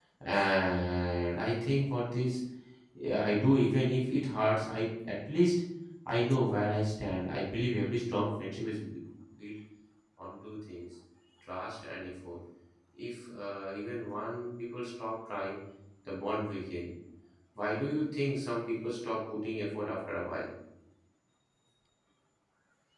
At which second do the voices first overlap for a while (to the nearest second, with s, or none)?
none